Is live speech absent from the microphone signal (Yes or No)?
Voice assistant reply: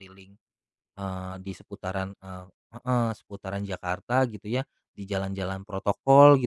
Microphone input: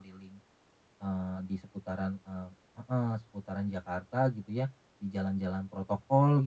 Yes